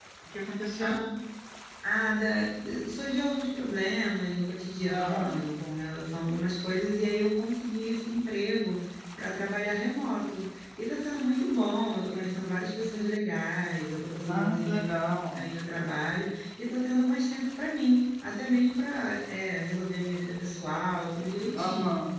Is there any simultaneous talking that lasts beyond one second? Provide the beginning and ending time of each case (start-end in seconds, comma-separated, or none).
14.2-15.5